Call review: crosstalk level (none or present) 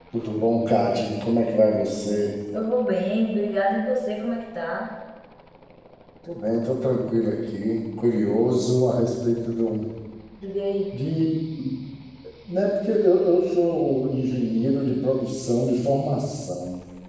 none